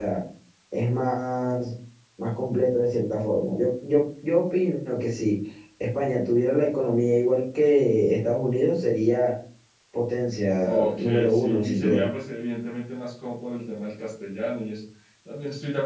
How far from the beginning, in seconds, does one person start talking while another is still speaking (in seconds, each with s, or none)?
10.6 s